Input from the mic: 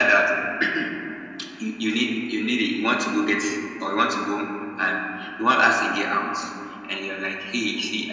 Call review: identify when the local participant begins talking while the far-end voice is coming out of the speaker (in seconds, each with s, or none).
none